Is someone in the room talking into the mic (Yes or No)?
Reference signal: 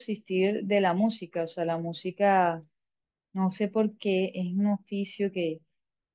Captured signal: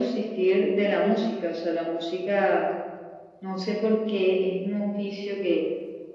No